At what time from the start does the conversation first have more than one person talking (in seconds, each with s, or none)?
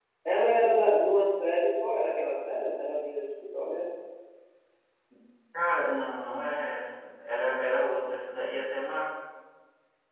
none